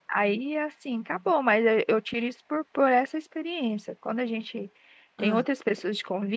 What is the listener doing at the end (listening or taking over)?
listening